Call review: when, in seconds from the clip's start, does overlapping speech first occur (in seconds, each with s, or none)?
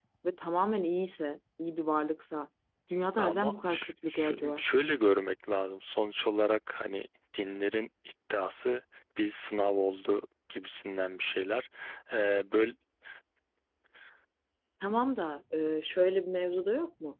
3.2 s